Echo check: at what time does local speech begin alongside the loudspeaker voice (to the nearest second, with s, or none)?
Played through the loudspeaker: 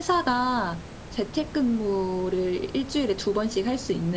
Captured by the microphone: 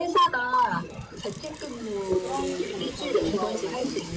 2 s